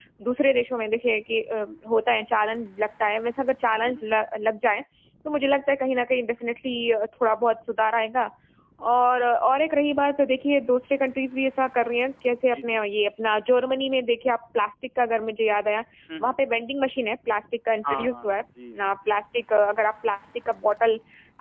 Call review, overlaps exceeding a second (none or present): none